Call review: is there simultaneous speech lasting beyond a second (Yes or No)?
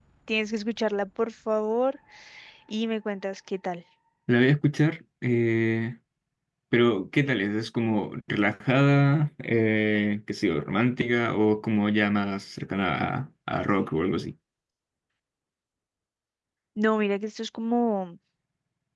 No